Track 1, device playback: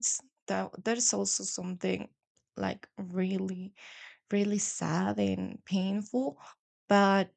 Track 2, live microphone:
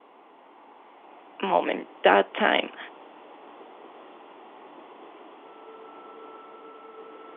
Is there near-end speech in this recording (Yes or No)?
Yes